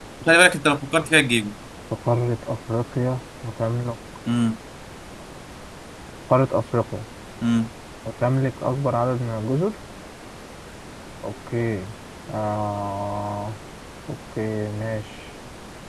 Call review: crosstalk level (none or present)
none